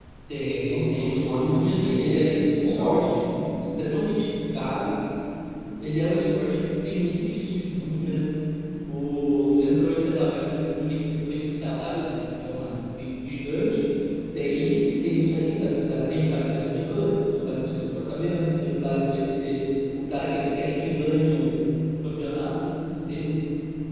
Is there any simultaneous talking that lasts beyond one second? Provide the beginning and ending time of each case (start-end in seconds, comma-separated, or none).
0.7-2.1